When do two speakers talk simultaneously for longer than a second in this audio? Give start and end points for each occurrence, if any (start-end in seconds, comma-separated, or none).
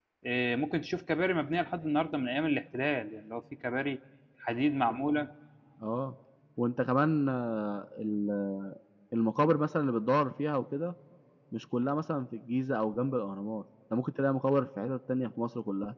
none